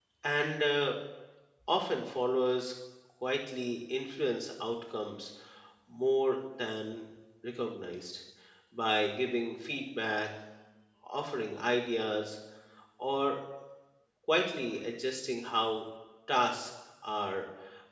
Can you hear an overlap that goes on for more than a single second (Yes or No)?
No